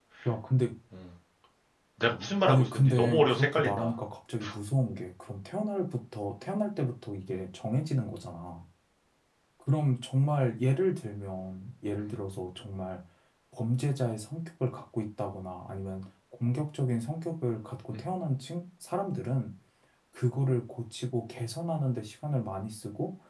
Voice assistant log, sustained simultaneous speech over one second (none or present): present